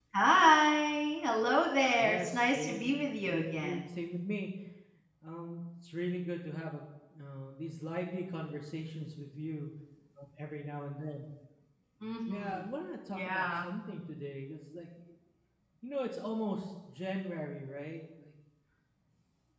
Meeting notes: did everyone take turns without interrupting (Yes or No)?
No